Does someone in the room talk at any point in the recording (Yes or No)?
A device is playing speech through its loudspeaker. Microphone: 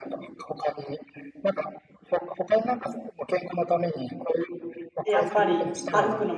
Yes